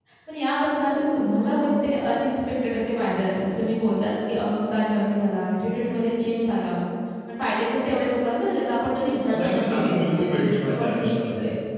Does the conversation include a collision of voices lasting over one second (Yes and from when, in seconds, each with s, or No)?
Yes, from 9.3 s